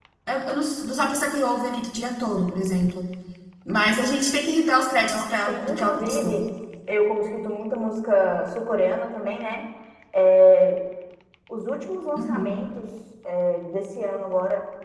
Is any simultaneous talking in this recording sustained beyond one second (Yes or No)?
Yes